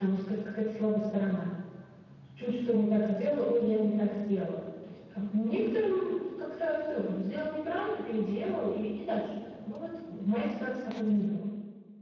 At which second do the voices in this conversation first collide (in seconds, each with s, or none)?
none